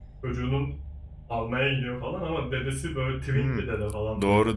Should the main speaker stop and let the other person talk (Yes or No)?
Yes